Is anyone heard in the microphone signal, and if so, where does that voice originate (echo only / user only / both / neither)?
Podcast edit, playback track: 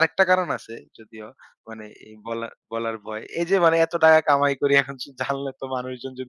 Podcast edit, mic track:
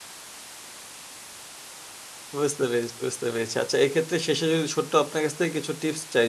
user only